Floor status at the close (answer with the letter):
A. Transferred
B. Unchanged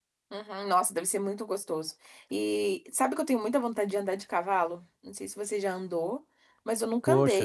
B